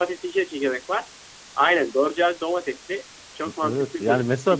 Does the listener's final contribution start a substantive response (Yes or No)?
Yes